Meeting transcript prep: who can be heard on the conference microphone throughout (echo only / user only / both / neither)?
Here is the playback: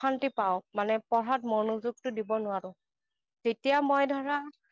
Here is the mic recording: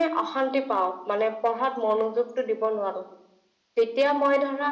echo only